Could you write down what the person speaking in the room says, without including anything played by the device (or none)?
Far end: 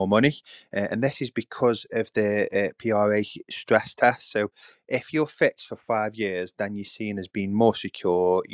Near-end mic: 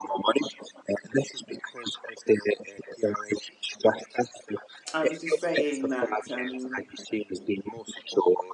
I was just saying that um,